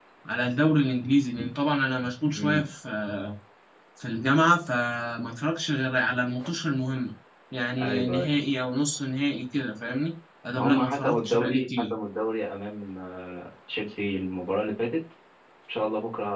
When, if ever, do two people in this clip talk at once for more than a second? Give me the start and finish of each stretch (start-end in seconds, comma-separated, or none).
10.6-11.8